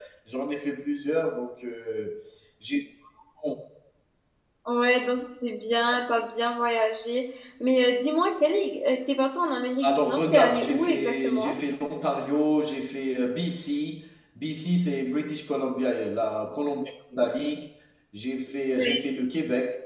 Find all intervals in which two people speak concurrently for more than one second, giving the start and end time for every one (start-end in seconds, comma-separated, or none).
9.8-11.6